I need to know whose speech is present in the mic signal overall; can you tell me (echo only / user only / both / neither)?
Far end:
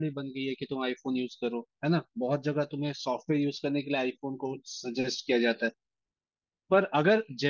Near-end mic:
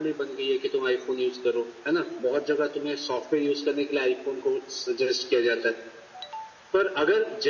echo only